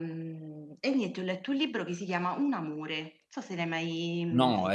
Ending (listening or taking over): taking over